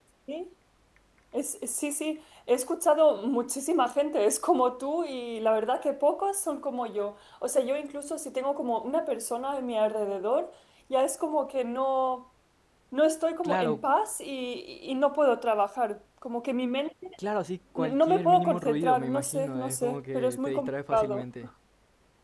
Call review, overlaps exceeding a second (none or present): present